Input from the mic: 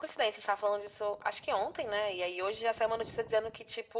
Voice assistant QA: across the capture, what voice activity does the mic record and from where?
echo only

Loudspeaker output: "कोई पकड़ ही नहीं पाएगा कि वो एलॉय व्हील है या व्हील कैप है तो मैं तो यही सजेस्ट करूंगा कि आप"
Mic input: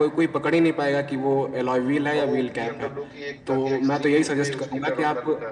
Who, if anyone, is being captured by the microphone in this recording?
both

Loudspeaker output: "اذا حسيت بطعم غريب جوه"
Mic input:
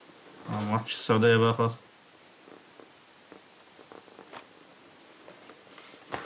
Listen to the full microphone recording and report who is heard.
user only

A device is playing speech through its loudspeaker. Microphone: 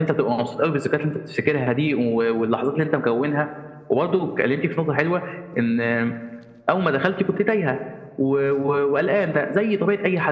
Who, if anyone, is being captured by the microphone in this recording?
echo only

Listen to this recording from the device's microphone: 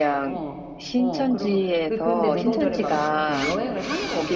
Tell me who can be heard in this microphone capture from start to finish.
both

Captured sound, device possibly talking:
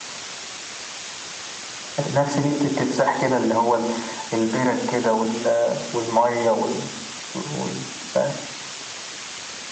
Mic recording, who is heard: echo only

